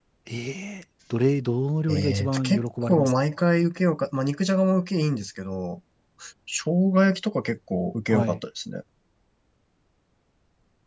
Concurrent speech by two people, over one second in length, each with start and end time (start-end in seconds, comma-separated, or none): 1.9-3.1